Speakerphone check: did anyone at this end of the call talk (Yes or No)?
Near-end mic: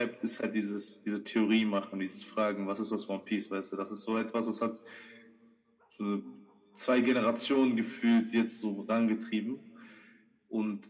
No